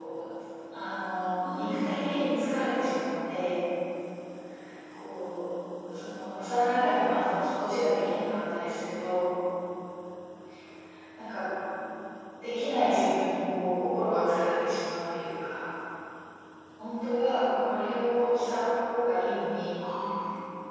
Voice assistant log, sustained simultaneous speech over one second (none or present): none